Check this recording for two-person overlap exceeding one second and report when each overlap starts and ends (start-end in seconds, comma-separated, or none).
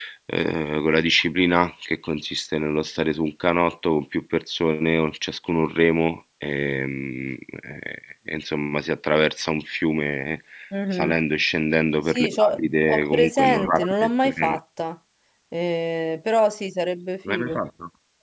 12.0-14.6